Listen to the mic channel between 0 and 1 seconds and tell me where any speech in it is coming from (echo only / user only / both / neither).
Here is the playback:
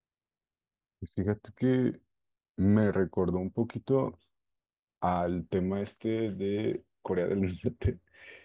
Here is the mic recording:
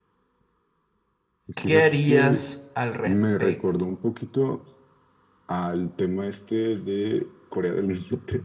neither